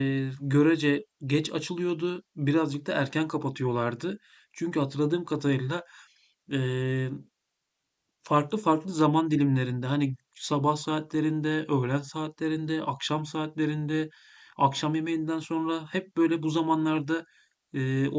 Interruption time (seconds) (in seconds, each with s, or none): none